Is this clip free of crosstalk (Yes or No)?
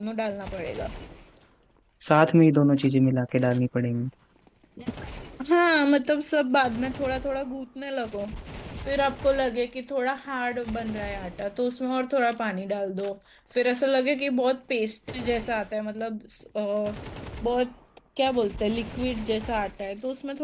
Yes